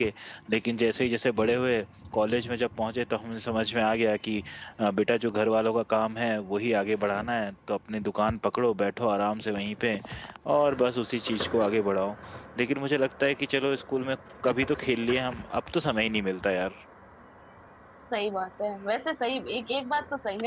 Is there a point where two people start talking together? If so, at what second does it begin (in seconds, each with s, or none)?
none